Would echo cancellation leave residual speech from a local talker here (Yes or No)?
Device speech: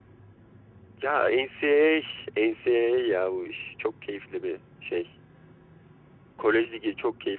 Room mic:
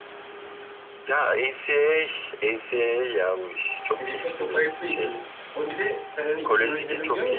Yes